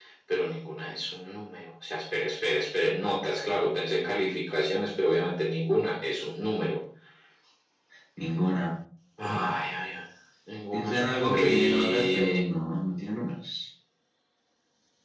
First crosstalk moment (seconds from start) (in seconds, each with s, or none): 10.7 s